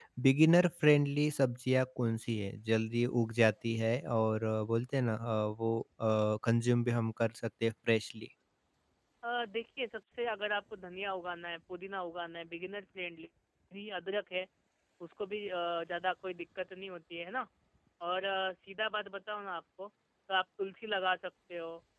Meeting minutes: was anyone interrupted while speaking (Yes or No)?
No